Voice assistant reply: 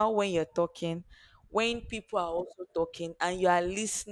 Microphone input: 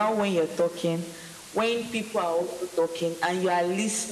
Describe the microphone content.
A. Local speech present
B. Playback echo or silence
B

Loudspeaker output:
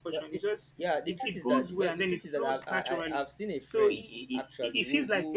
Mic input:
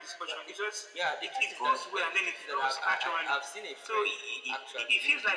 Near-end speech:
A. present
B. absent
B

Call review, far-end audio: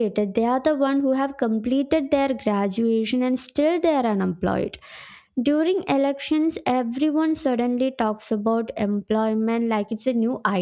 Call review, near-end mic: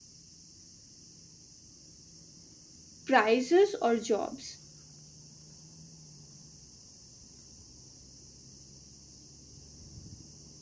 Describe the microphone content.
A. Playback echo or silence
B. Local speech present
B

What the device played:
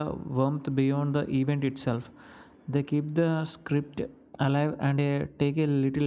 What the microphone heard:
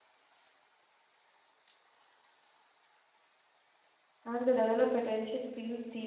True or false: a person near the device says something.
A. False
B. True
B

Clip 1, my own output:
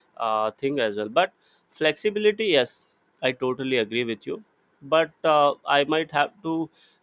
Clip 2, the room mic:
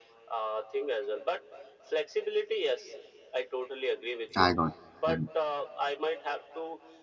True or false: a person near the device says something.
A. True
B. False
A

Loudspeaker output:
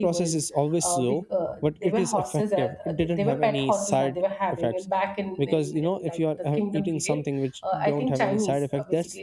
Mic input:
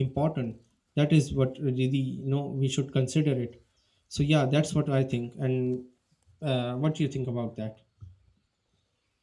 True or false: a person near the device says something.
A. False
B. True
B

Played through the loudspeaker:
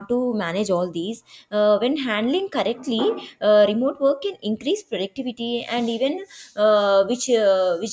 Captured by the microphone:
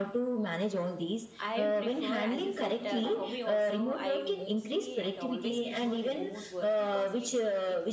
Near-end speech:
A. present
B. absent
A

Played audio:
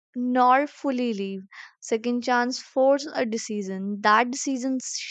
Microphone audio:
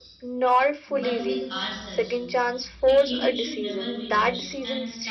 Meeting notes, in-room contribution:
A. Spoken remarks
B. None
A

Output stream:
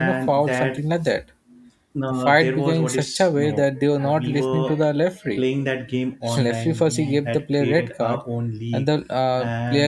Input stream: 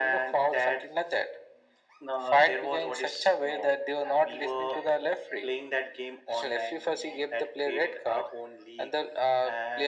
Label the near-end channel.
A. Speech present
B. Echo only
B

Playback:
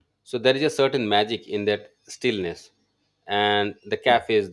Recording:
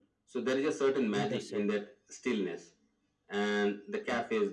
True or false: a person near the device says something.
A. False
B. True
B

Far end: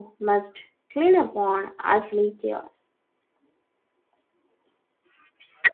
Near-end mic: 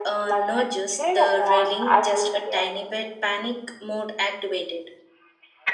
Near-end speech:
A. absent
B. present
B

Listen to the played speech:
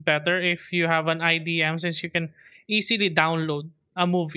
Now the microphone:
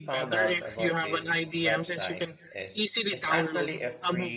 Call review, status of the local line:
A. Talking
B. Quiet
A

